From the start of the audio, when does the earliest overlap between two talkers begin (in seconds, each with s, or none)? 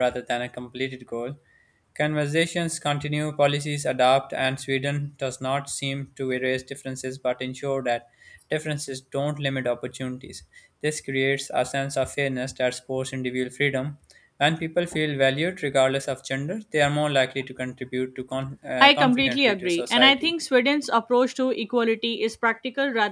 18.8 s